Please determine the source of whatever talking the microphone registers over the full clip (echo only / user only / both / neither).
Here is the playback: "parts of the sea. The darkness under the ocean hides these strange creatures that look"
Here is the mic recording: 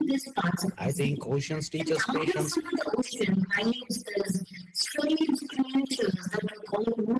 both